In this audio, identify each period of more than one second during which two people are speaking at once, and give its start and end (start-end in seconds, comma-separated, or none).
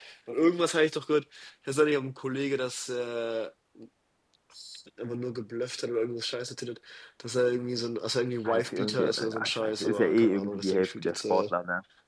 8.4-11.4